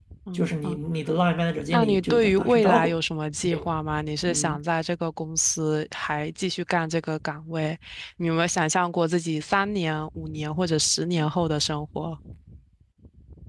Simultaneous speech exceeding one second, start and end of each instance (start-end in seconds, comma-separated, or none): 1.7-2.9